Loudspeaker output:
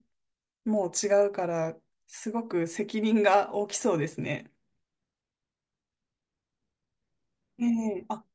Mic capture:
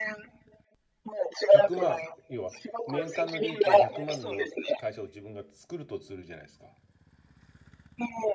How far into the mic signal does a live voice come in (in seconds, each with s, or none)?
1.4 s